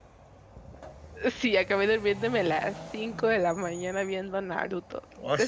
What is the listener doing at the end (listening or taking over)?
listening